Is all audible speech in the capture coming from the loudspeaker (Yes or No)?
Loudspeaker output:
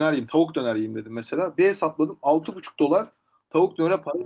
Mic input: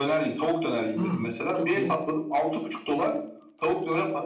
No